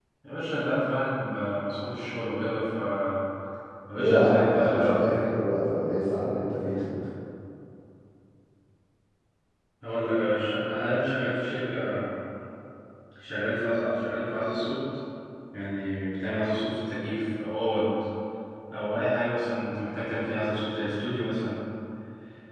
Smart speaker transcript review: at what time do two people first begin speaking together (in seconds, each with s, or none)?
4.0 s